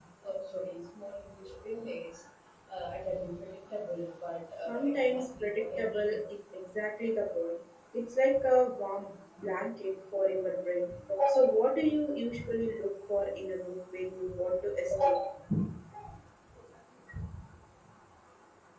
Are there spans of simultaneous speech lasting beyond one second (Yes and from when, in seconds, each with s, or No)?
Yes, from 4.7 s